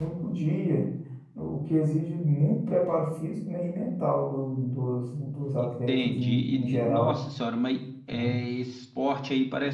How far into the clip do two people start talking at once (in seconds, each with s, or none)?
5.6 s